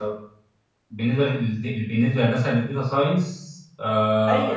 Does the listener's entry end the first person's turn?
Yes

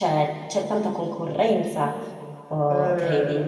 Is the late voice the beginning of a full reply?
Yes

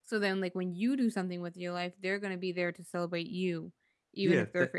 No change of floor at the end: No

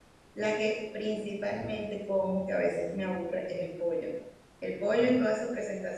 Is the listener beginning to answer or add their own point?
No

